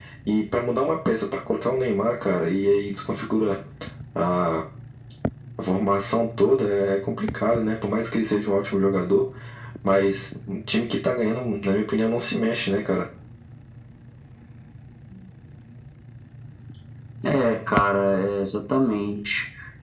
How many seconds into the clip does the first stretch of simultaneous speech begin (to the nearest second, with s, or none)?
none